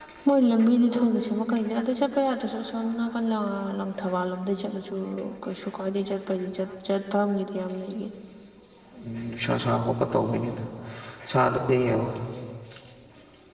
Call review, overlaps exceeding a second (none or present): none